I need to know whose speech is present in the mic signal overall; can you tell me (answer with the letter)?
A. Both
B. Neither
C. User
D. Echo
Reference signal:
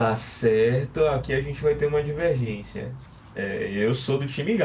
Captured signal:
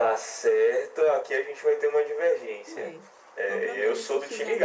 A